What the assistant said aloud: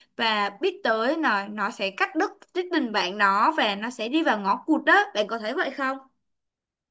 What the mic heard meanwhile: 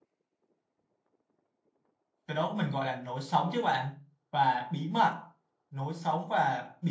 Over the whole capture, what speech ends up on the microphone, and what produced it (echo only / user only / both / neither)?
user only